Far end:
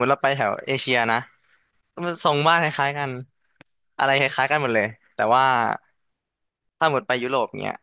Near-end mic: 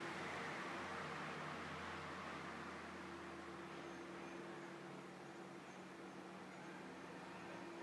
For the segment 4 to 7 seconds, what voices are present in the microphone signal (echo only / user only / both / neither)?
neither